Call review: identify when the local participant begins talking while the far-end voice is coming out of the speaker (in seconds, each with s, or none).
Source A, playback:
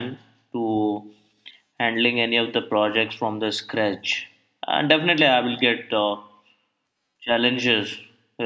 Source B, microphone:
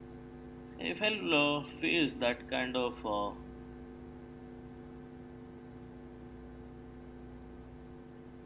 0.8 s